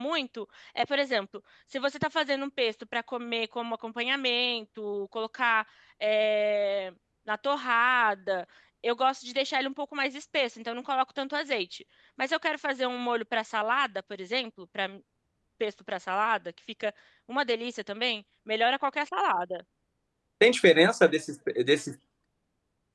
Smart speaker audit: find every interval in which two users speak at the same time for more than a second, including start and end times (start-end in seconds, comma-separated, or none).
none